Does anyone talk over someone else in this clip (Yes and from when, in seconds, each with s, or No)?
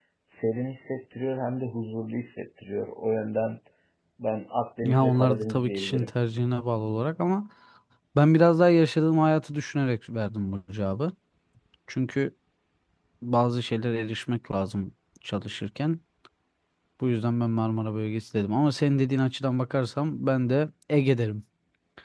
Yes, from 4.8 s